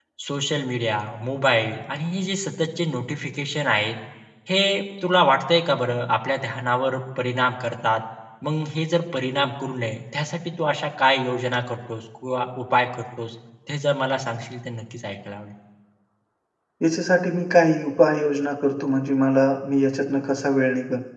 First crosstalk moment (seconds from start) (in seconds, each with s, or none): none